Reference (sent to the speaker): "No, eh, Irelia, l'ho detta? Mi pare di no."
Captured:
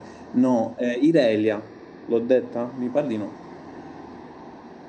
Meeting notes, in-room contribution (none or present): none